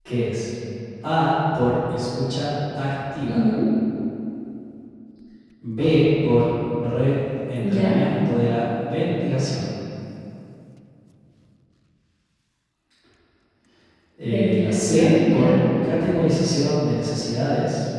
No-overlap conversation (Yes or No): No